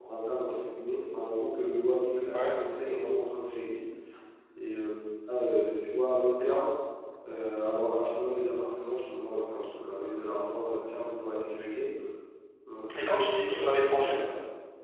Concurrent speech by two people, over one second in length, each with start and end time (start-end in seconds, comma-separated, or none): 12.9-14.2